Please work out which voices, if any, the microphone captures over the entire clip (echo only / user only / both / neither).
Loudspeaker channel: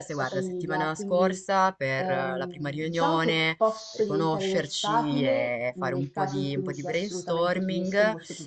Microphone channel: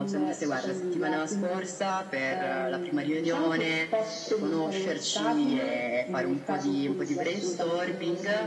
echo only